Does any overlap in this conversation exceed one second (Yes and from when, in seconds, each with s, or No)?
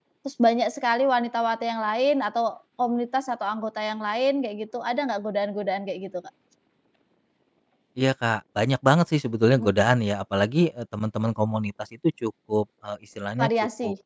No